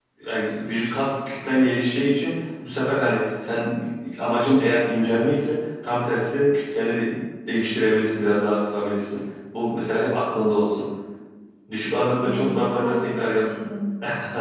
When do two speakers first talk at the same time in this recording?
12.2 s

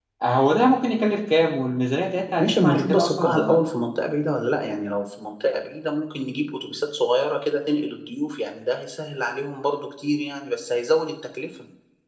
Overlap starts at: 2.4 s

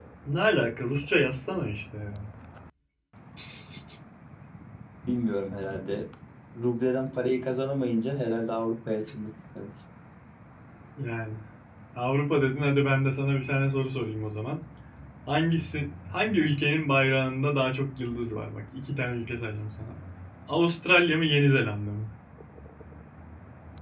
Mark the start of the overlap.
none

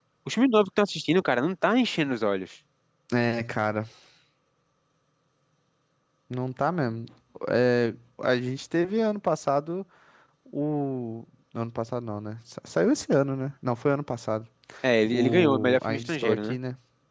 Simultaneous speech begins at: 15.1 s

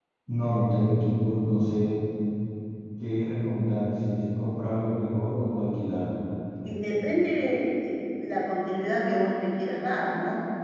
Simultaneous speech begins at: none

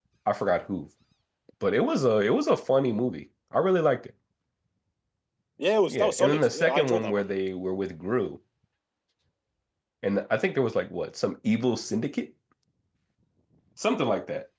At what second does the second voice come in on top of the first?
5.9 s

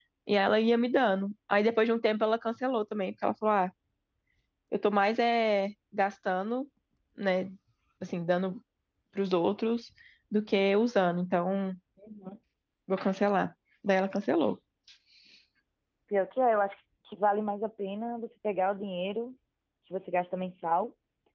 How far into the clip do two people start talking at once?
none

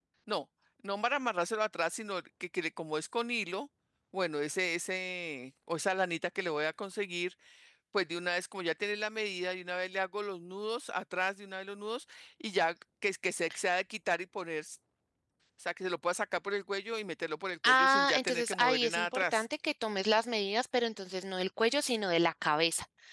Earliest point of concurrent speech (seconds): 17.6 s

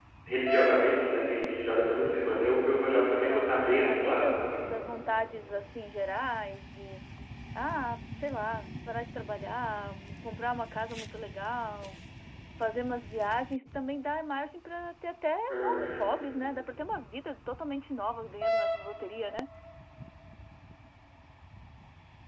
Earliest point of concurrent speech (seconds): 2.9 s

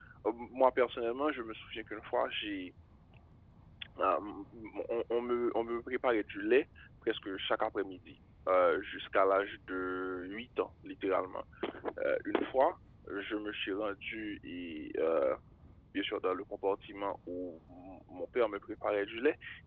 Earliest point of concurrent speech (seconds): none

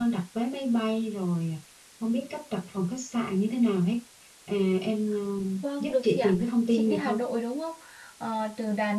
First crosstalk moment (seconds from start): 5.8 s

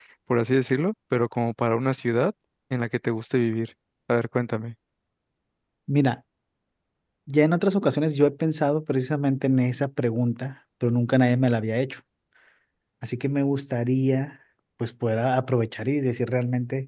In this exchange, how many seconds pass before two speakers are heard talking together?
none

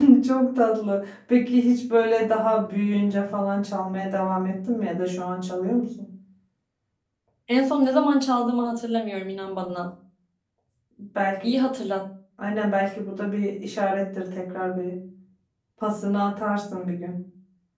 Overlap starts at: none

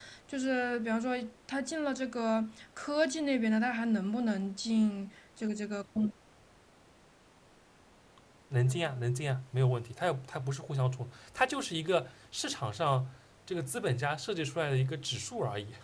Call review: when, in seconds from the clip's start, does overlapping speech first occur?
none

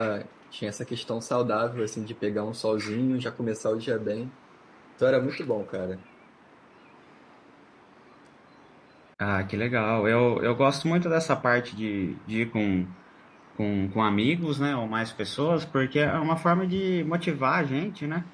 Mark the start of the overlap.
none

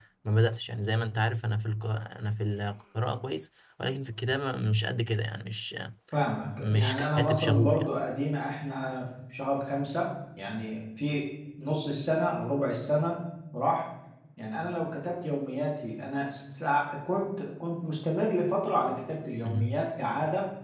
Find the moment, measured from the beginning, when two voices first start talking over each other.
6.6 s

